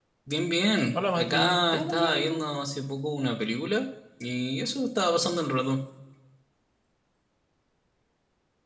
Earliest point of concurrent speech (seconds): 0.9 s

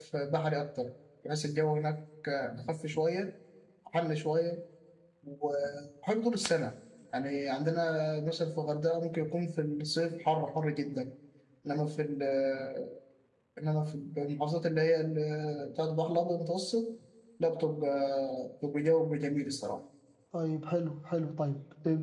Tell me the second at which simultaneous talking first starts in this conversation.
none

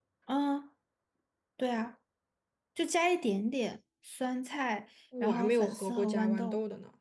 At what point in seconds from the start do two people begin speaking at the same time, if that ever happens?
5.1 s

